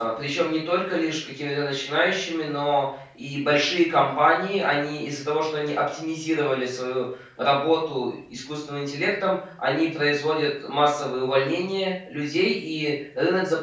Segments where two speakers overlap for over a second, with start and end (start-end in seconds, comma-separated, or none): none